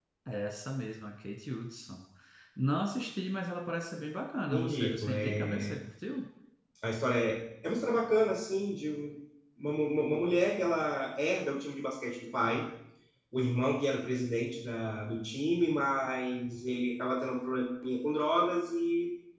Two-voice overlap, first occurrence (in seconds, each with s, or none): 4.5 s